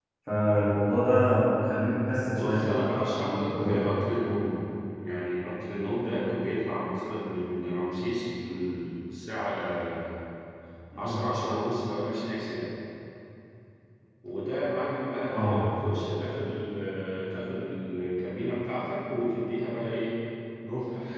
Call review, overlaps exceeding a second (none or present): present